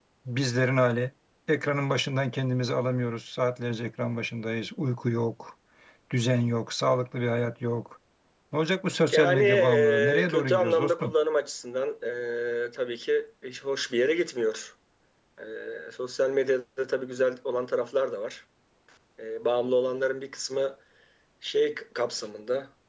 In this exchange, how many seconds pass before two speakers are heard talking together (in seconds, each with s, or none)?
9.1 s